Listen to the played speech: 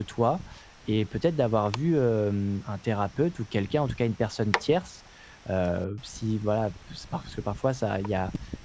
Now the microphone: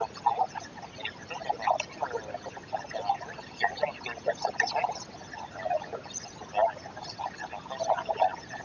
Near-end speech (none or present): none